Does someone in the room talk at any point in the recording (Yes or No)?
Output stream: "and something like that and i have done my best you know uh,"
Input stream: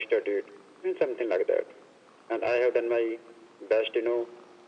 No